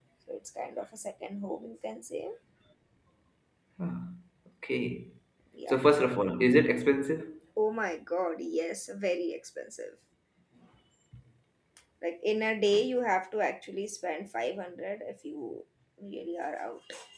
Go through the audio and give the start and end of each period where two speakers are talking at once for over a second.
none

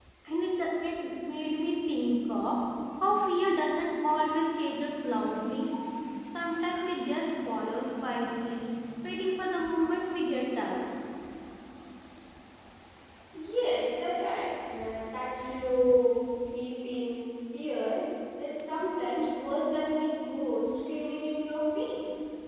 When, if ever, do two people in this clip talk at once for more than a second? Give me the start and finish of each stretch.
none

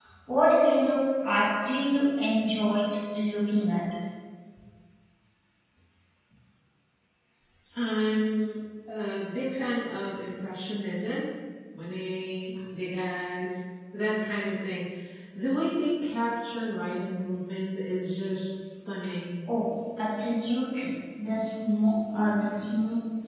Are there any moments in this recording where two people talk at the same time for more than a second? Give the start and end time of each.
none

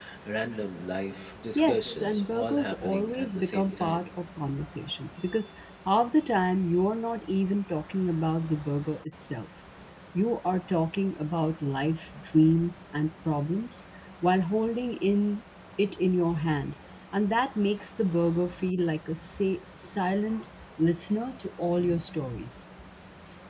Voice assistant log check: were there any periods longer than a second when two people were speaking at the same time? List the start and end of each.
1.6-4.0

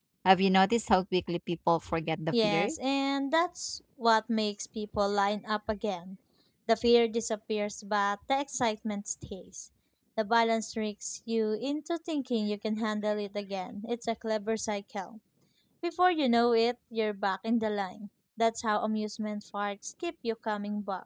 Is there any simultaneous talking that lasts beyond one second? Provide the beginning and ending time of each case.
none

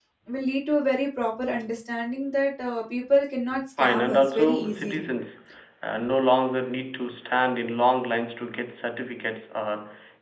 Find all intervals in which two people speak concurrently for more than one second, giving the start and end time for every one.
3.8-5.1

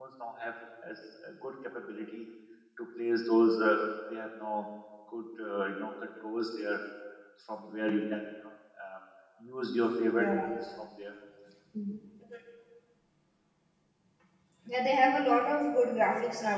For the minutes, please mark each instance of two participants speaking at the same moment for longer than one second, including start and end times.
none

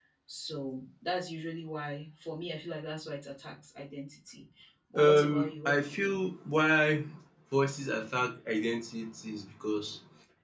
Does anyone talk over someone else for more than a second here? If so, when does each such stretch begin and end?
5.0-6.2

